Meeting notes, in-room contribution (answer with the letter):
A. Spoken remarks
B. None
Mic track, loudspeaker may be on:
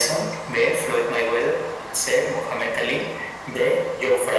B